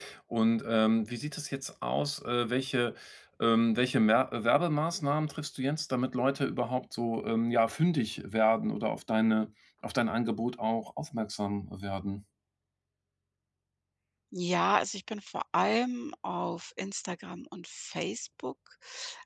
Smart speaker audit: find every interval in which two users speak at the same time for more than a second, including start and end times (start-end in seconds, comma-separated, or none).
none